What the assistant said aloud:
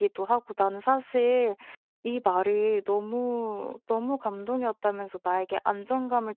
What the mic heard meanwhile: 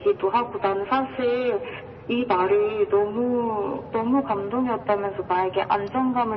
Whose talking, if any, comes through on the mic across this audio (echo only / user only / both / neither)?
echo only